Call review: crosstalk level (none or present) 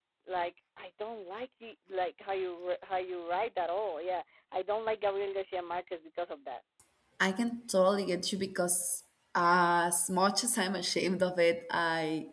none